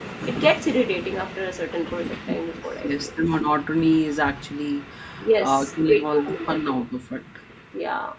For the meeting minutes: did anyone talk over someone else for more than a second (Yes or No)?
Yes